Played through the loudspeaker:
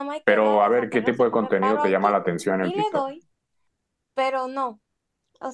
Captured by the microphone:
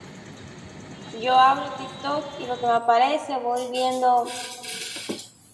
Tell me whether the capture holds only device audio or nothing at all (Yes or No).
No